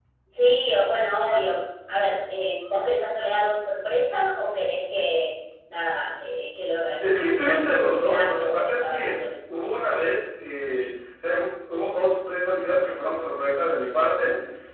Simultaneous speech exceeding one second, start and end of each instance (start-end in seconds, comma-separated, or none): 7.0-9.2